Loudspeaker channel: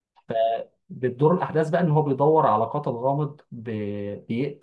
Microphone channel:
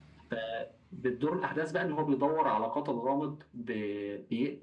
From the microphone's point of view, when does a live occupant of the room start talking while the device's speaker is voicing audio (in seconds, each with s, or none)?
none